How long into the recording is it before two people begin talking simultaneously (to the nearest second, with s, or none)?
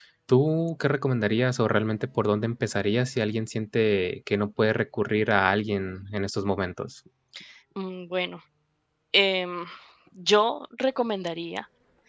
none